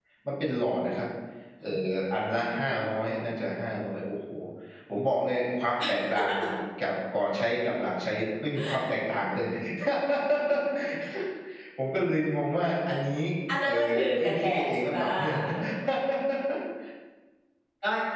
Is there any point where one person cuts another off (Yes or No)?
Yes